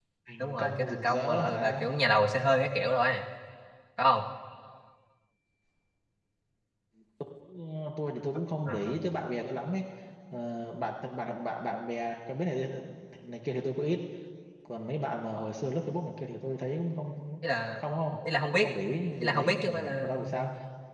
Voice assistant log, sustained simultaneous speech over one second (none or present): present